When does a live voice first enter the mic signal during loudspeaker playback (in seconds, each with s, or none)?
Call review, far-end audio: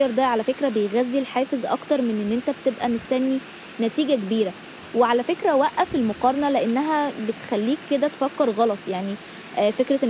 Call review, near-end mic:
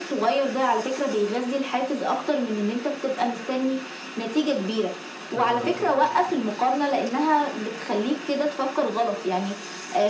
5.3 s